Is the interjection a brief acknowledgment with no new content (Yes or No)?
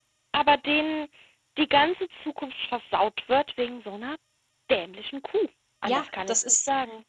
No